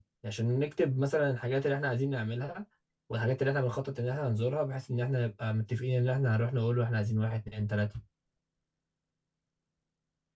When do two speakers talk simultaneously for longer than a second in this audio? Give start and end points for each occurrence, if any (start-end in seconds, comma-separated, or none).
none